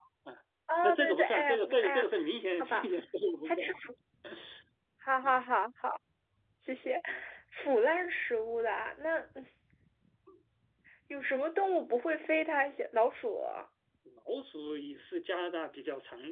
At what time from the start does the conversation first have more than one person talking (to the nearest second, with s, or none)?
1 s